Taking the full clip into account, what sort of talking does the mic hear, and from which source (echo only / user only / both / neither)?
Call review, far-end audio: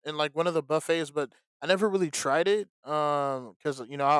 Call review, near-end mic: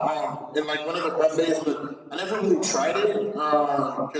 echo only